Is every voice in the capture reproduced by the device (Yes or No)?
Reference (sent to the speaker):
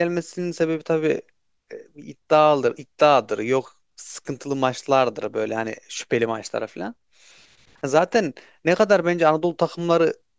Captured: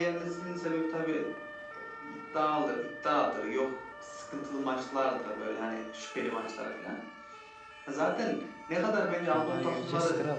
No